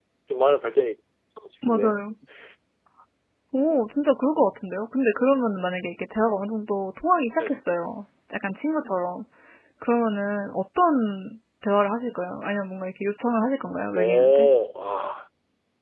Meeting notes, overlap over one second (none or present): none